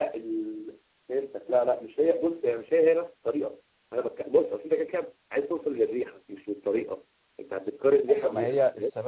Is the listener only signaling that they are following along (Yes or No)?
No